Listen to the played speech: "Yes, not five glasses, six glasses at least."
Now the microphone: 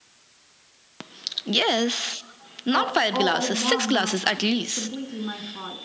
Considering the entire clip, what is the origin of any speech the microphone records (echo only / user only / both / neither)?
both